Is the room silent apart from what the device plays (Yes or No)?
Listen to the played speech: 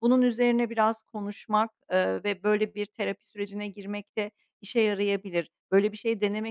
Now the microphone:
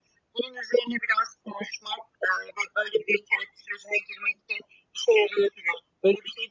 Yes